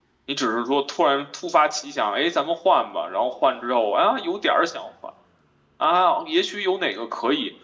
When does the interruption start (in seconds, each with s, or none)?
none